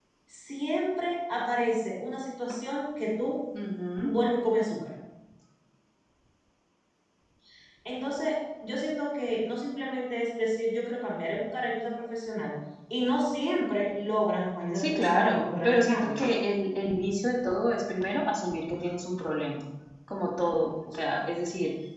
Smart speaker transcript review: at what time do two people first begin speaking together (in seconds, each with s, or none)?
14.7 s